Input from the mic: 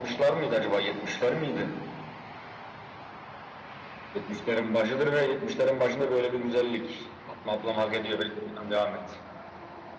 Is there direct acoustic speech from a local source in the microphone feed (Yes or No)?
No